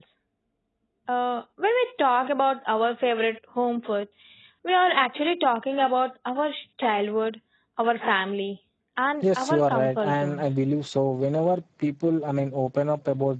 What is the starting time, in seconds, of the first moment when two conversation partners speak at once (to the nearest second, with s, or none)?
9 s